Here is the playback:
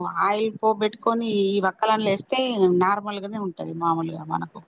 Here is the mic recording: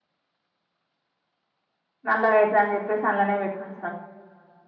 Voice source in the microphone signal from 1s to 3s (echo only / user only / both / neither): user only